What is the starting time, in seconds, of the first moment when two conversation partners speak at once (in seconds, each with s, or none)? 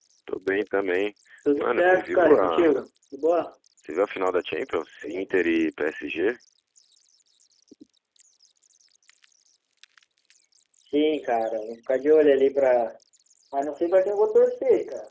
1.6 s